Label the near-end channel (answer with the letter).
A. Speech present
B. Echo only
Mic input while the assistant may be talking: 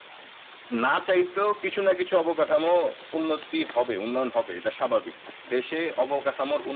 B